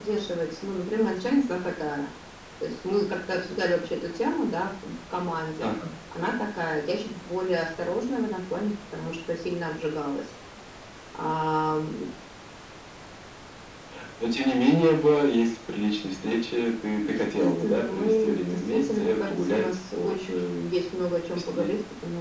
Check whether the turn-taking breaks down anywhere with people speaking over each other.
Yes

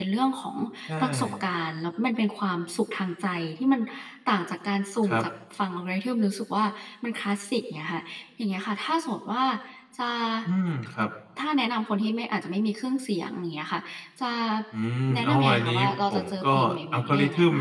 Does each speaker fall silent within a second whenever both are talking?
No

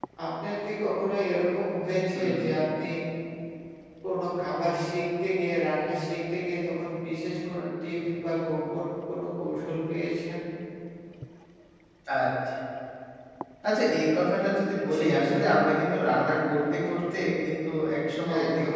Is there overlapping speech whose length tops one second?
No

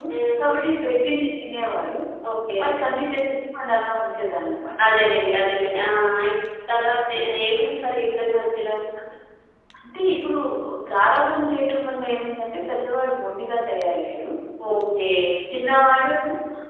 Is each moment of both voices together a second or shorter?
Yes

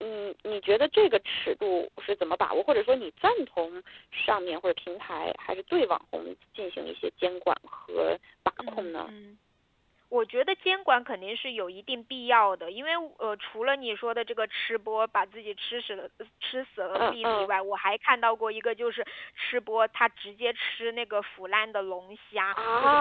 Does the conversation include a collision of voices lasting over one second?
No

